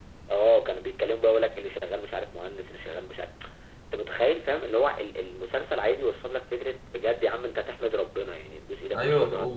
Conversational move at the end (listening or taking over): taking over